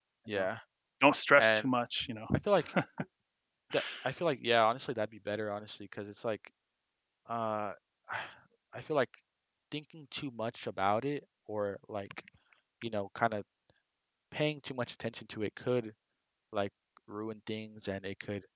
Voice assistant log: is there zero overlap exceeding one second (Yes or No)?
Yes